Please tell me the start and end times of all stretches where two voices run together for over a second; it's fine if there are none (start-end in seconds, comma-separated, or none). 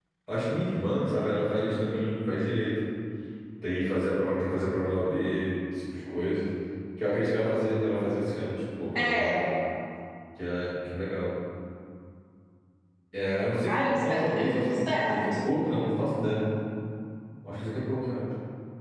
13.7-15.1